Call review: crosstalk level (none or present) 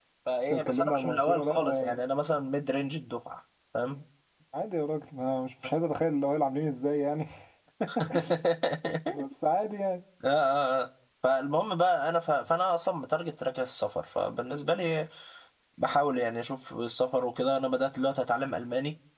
present